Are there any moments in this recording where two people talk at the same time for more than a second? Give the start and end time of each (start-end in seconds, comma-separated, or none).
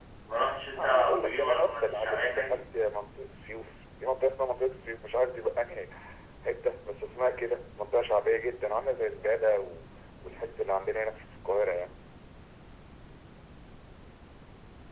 0.8-2.6